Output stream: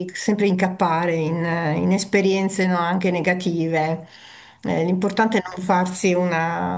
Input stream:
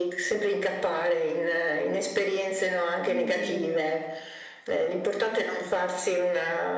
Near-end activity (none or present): present